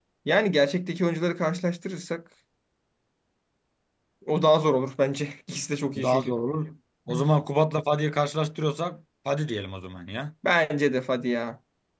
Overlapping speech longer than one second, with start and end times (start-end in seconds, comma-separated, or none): none